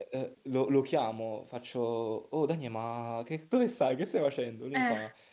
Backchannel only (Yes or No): Yes